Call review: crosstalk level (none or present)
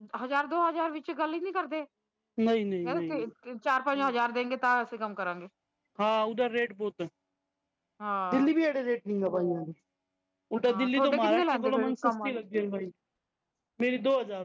present